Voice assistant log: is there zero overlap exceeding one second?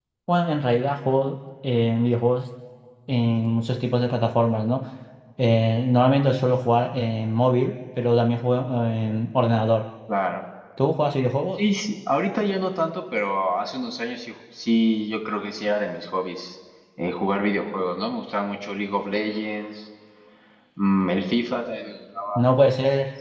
Yes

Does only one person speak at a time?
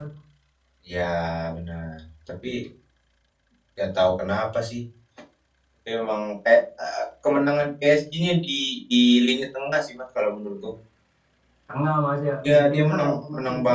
No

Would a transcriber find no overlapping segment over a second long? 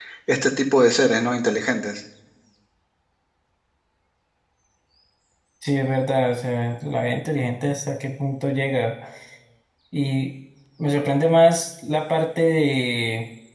Yes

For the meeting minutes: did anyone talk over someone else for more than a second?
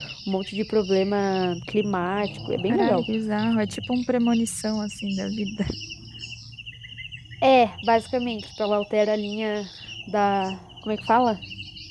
No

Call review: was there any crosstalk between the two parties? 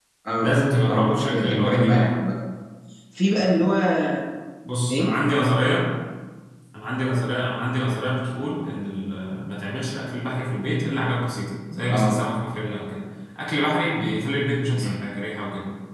Yes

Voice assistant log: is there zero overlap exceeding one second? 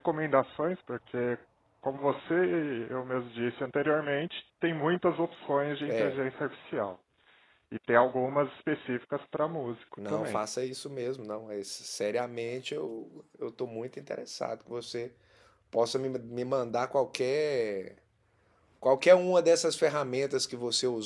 Yes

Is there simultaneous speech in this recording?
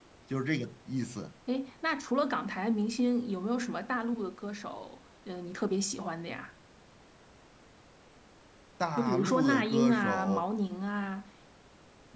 Yes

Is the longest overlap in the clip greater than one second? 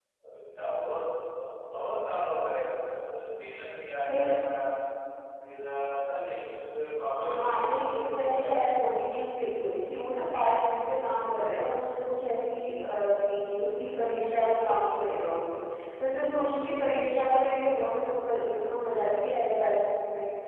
Yes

